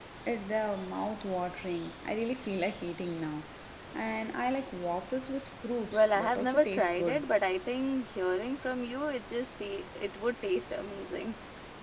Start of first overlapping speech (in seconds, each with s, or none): 5.9 s